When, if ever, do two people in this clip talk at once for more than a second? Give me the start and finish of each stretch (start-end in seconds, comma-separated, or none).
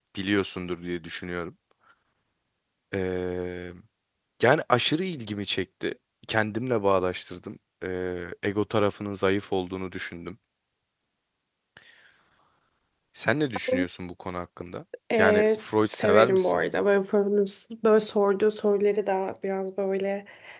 15.2-16.6